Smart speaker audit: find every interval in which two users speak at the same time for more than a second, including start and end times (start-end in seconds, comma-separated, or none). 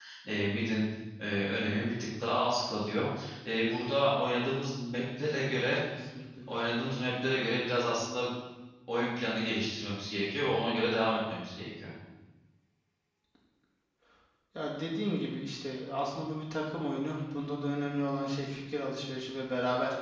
none